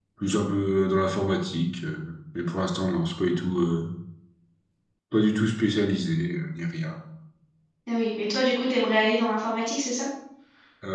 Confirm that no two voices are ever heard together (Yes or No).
Yes